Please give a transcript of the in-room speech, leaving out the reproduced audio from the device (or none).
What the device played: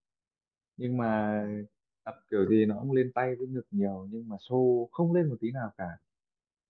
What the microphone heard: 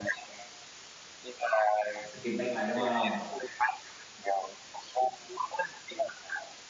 À, skip leg day đúng không?